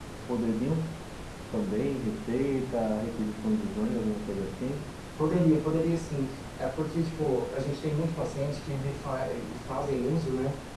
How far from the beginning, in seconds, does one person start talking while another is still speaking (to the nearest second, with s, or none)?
none